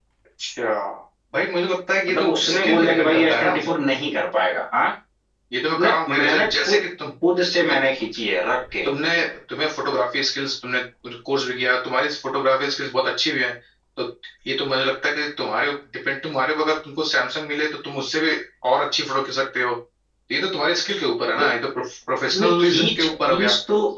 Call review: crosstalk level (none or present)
present